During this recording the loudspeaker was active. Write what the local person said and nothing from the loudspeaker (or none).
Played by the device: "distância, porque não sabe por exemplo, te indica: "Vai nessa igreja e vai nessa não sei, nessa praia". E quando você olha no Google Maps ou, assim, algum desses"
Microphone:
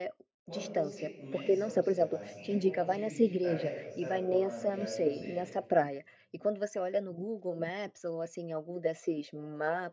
quando você começa a observar assim, é como dividir tarefas, sabe, para uma viagem, ou seja,